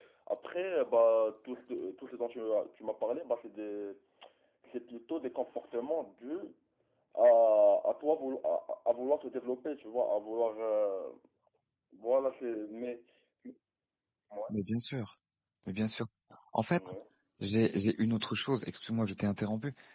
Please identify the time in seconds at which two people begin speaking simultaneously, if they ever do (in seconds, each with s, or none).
none